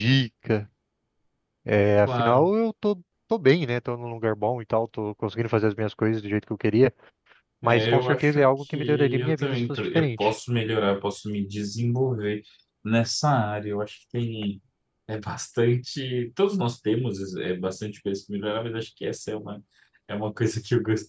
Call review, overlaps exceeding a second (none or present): present